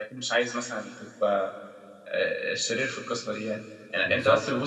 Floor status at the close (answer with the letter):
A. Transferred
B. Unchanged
B